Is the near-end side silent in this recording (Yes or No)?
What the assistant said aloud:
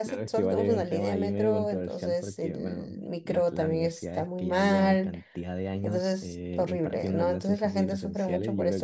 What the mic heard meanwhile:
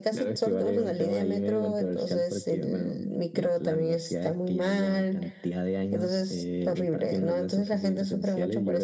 Yes